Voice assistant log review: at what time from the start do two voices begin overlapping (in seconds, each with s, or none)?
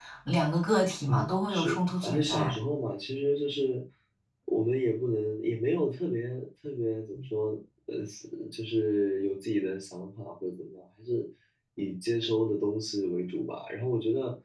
1.1 s